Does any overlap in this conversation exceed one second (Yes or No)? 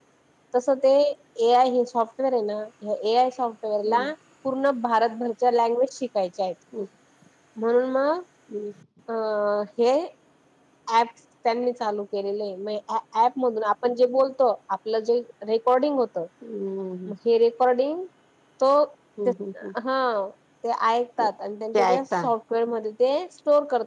No